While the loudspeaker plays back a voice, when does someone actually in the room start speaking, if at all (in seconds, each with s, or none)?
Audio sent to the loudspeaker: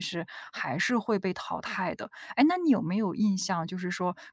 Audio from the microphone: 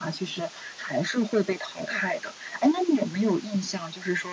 none